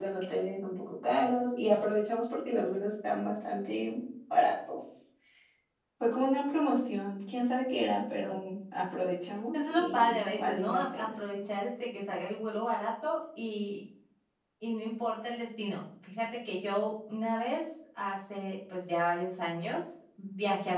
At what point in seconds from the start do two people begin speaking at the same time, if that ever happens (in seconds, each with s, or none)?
9.5 s